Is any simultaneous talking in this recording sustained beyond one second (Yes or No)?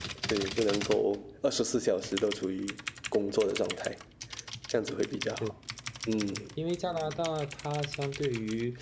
No